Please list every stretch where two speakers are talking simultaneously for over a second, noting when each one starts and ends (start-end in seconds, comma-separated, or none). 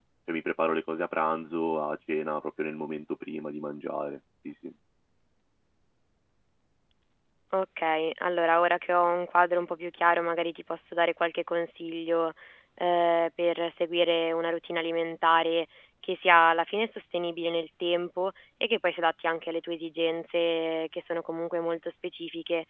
none